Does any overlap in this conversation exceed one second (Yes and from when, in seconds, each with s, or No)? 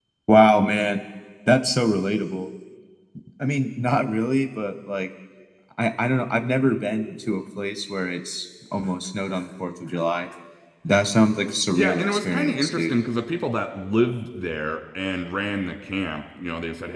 Yes, from 11.7 s